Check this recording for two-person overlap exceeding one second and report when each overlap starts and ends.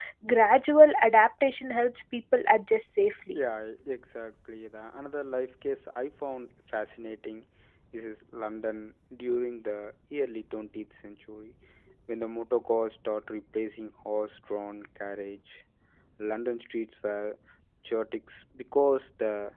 none

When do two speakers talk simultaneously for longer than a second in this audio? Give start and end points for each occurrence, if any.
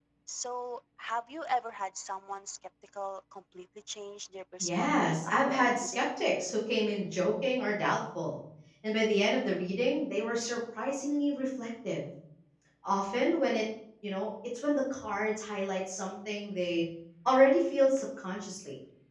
4.6-6.1

